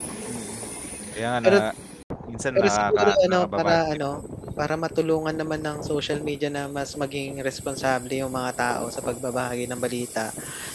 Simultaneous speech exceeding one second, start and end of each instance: 2.5-3.8

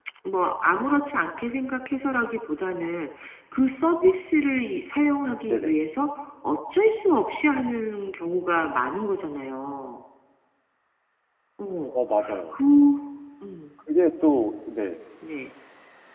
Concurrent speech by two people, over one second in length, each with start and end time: none

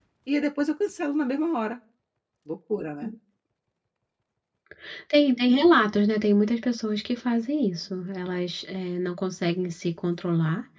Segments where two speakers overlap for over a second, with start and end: none

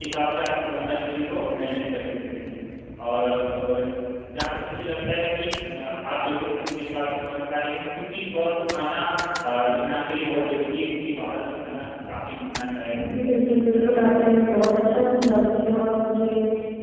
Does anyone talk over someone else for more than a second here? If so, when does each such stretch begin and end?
13.2-14.5

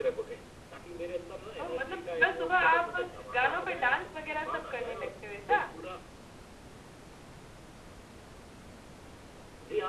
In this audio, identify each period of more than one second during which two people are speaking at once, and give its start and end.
1.6-5.1

